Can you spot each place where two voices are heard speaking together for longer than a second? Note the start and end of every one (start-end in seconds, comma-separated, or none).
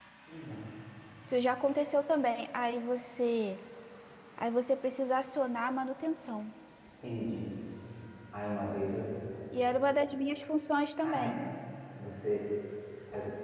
none